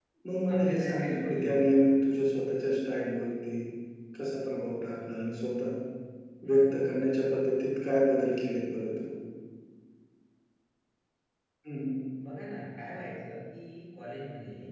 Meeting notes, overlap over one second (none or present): present